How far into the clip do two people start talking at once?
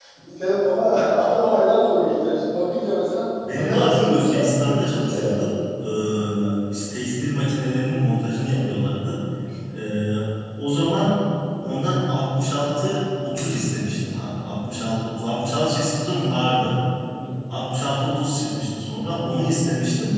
3.5 s

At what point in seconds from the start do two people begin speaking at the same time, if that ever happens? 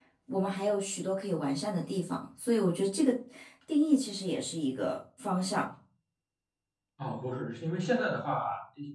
none

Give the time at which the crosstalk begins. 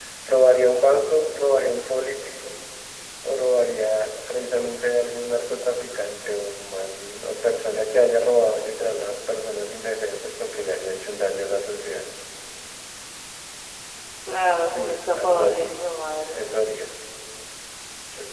14.6 s

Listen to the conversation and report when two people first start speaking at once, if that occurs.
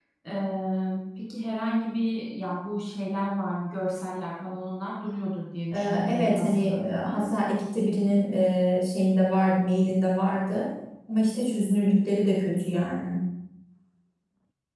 5.7 s

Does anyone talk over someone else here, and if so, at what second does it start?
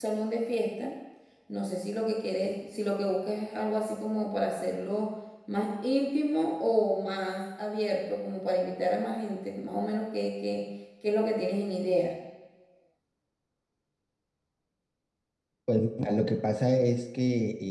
none

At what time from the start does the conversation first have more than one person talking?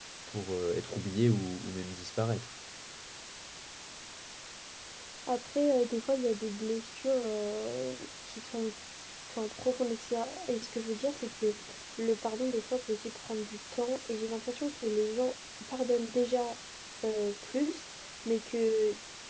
none

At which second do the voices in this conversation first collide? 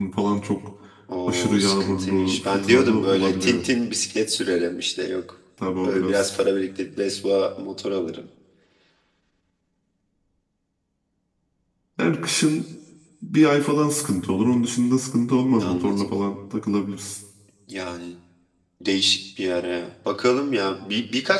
1.3 s

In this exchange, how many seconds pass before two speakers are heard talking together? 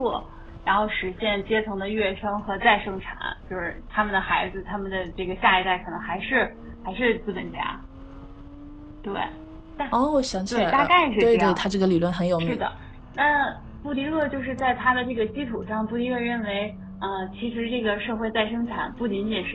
10.5 s

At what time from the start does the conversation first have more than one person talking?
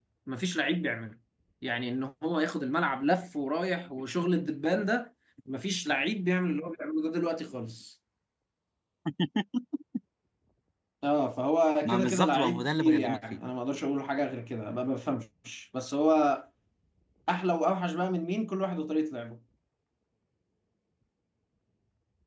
11.8 s

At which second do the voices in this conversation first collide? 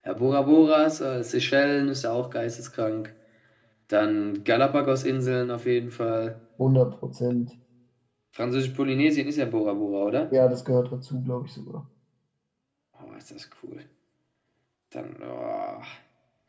none

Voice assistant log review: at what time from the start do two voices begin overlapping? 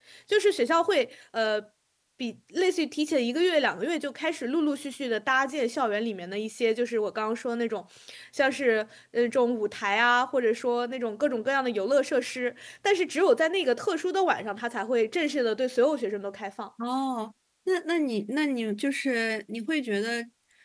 none

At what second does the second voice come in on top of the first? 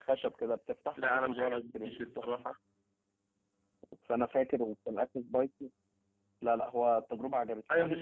0.9 s

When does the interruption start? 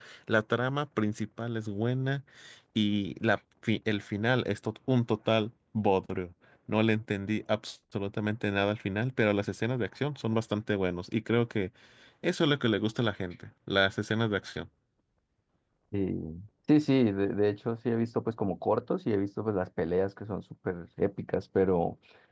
none

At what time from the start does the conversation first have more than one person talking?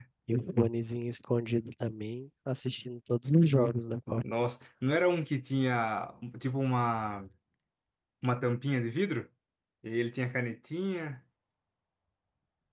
none

